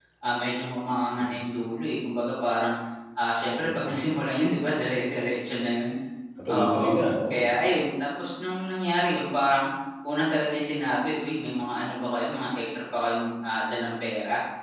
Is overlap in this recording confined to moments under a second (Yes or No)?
Yes